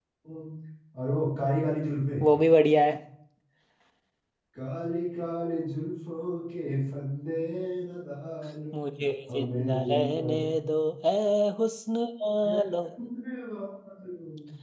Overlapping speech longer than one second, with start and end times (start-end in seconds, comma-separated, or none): 9.3-10.9